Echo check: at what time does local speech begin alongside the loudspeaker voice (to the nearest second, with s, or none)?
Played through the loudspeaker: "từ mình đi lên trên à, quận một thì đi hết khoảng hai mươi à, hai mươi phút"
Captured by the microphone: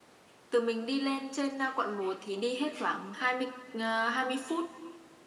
none